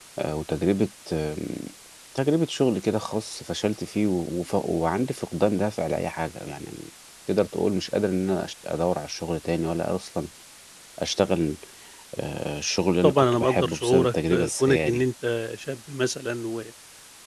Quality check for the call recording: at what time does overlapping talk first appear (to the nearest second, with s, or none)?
13 s